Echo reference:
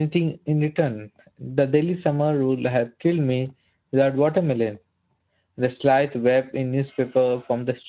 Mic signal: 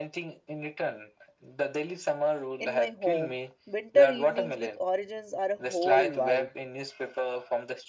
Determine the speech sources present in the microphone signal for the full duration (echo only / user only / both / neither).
both